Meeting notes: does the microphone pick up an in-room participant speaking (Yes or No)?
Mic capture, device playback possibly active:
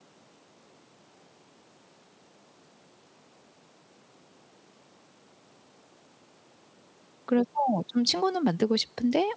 Yes